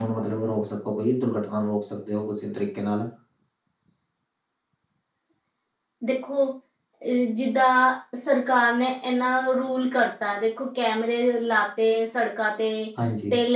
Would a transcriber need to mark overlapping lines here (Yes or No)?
No